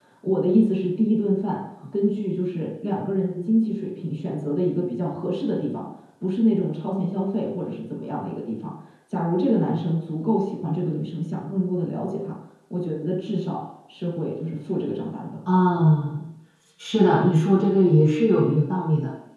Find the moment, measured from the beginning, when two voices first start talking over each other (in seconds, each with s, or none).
none